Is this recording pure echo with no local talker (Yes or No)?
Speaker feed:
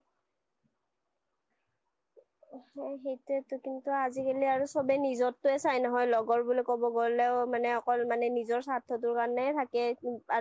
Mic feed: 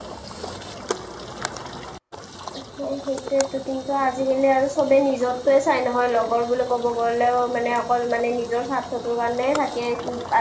Yes